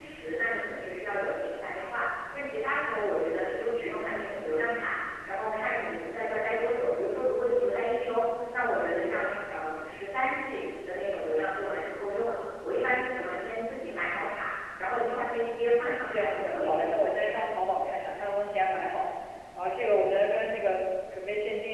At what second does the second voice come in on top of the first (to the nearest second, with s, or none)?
16 s